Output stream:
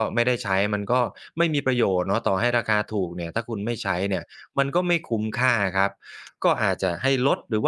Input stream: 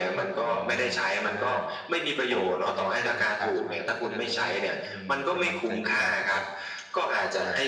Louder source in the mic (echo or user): echo